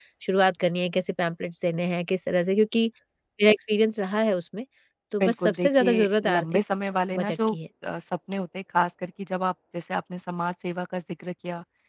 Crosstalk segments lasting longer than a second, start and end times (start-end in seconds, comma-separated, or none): 5.2-6.4